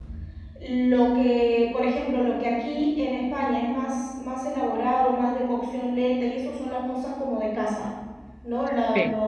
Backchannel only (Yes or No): Yes